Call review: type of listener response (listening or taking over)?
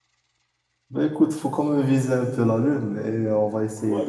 taking over